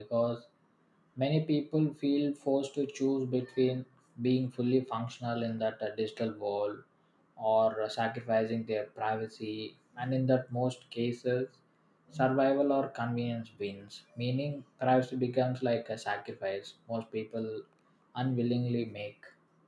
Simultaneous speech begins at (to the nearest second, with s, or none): none